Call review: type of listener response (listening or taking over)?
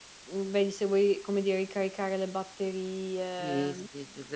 taking over